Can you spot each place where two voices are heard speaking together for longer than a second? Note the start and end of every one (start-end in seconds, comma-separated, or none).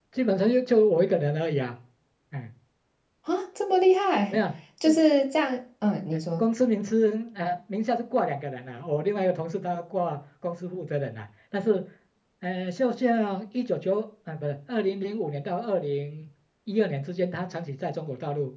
none